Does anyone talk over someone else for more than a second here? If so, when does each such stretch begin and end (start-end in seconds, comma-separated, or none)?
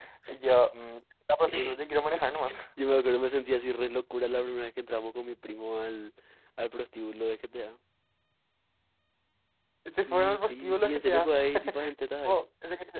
10.1-11.3